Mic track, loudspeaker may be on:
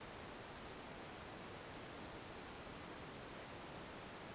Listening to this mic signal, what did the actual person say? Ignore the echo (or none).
none